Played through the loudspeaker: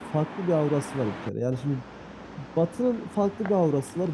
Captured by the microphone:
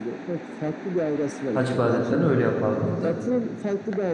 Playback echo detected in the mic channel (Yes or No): Yes